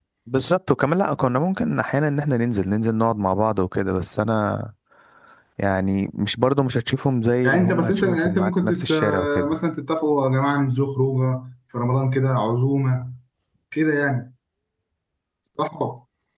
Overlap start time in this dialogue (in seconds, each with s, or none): 7.4 s